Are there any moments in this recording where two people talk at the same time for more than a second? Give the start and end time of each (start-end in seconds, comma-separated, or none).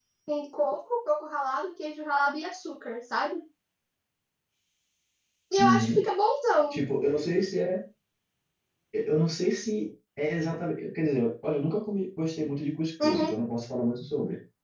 none